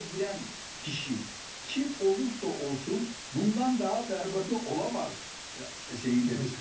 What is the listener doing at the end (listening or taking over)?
taking over